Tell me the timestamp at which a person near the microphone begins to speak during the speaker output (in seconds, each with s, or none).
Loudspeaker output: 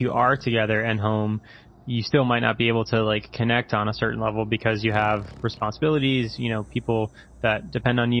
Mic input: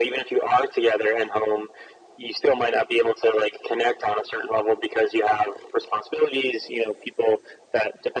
none